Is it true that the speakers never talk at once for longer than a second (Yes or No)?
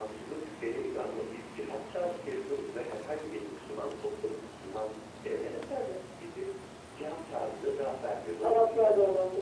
Yes